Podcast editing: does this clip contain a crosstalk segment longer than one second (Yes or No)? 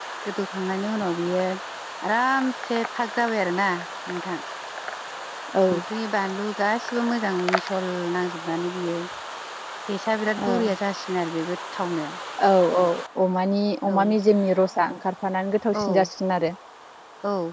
No